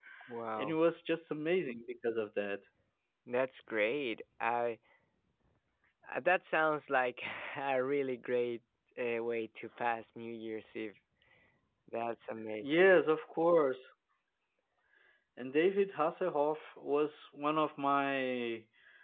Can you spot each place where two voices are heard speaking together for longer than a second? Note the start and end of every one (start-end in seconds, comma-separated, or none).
none